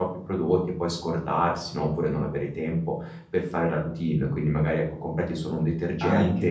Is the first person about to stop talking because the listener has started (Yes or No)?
No